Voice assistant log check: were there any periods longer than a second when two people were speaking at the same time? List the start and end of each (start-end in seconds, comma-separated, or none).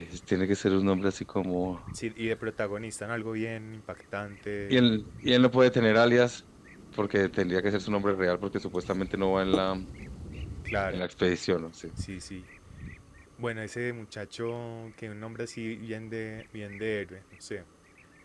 none